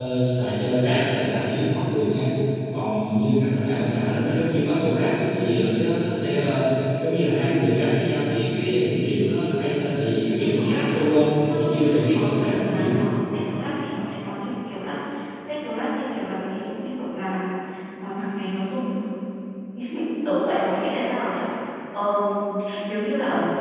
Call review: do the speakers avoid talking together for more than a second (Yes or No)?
No